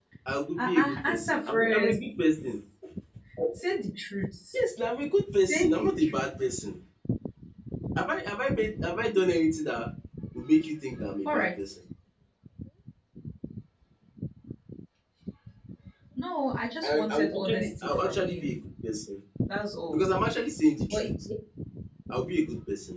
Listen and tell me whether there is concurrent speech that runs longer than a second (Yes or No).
Yes